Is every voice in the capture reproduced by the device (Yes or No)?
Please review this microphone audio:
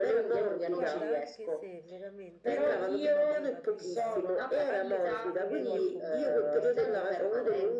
No